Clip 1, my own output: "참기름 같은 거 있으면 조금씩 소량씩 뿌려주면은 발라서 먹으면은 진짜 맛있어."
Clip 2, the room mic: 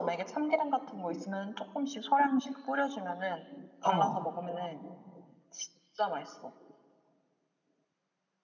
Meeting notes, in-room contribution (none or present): present